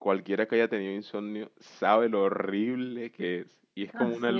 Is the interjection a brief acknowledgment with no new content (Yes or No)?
Yes